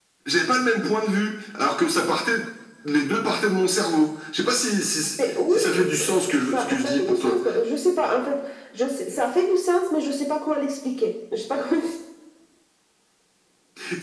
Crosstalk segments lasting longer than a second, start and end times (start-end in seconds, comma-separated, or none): 5.5-7.4